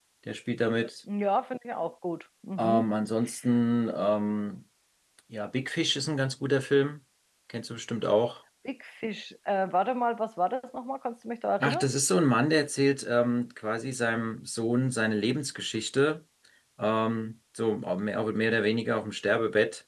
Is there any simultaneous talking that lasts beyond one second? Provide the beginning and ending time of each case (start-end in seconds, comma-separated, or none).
none